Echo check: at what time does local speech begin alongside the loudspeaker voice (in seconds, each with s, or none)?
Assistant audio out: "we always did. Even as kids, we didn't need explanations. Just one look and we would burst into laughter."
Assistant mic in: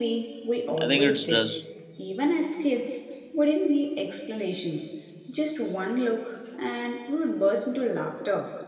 0.8 s